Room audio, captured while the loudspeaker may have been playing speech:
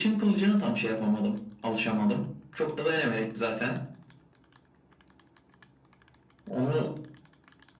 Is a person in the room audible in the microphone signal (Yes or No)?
No